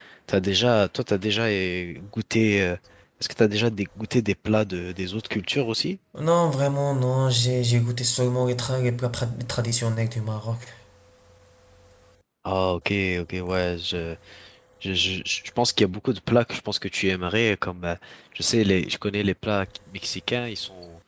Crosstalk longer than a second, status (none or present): none